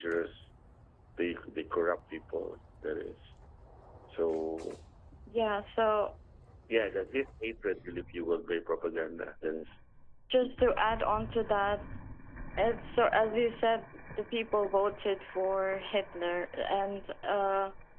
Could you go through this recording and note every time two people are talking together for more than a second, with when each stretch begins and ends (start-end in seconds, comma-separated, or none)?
none